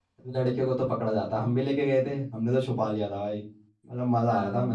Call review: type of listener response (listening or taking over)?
listening